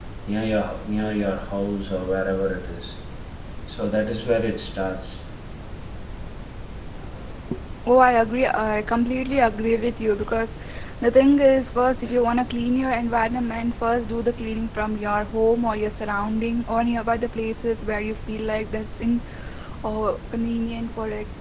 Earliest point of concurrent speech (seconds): none

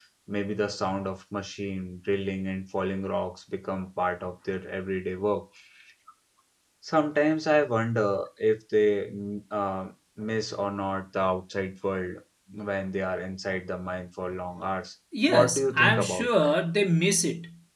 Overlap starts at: 15.1 s

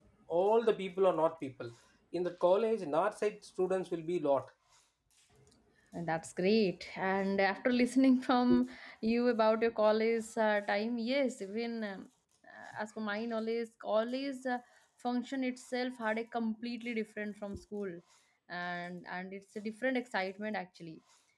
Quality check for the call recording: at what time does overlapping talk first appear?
none

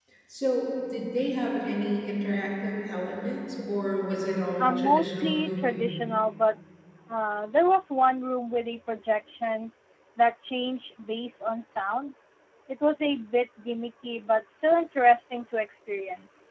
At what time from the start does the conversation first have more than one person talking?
4.6 s

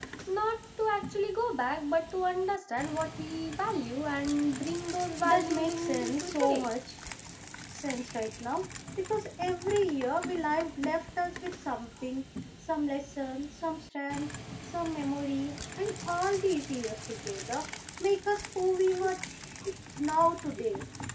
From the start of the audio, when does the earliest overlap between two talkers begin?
5.2 s

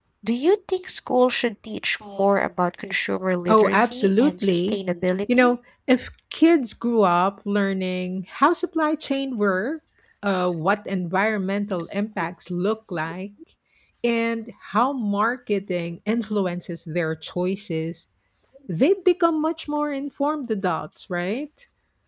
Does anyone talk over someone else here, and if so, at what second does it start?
3.5 s

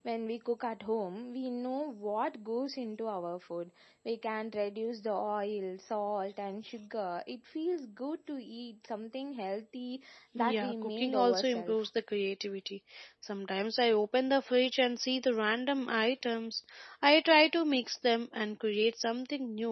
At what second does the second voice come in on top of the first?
10.4 s

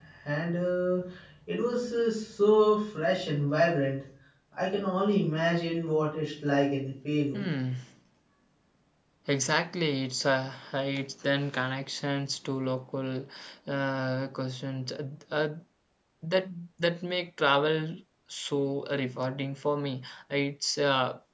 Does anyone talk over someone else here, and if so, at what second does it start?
none

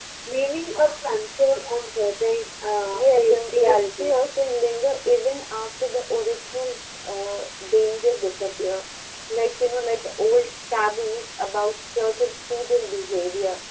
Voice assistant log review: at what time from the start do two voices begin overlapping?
2.9 s

